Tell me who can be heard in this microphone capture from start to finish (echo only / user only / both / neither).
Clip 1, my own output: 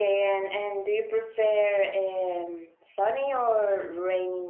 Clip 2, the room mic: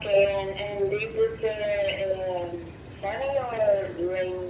echo only